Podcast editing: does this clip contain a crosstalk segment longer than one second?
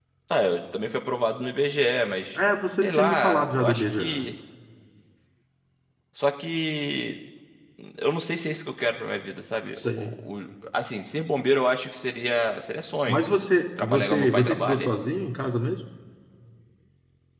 Yes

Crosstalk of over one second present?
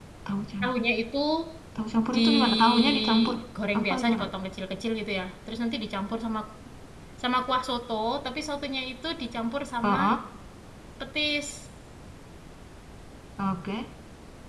Yes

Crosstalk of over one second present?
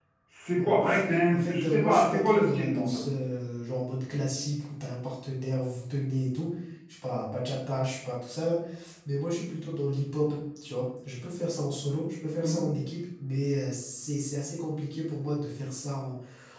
Yes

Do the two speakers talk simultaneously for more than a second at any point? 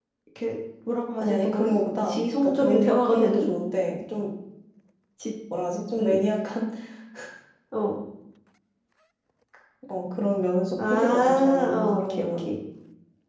Yes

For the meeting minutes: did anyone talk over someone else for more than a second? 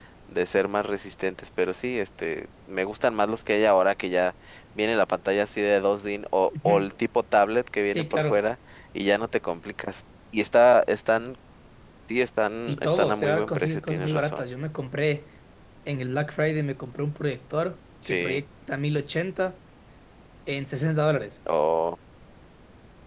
Yes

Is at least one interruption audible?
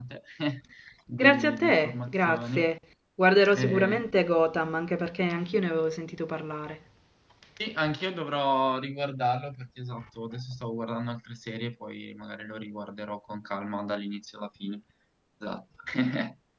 Yes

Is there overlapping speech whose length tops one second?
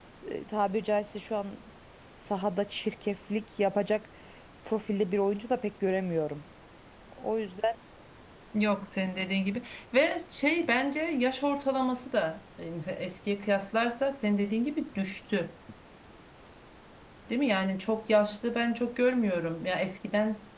No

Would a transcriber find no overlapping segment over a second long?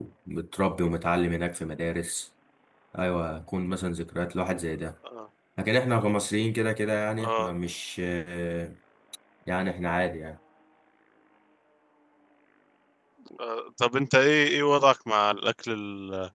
Yes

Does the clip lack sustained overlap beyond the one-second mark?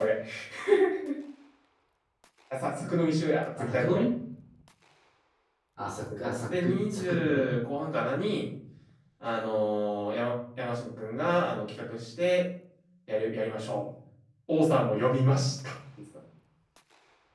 No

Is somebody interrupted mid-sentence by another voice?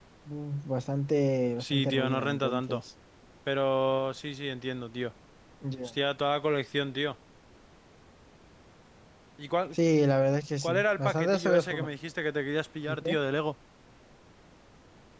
Yes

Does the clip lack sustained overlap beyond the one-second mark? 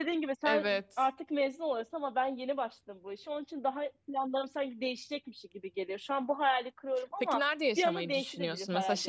No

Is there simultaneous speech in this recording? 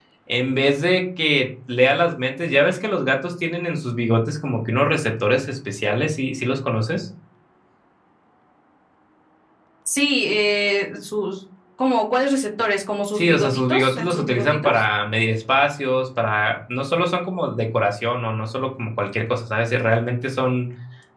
Yes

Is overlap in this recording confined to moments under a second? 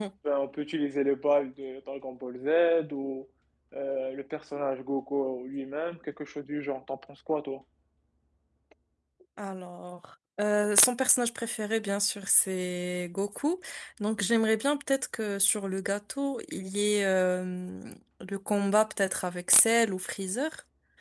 Yes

